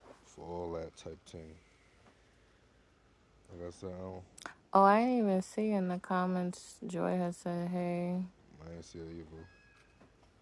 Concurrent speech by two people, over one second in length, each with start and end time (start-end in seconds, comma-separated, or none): none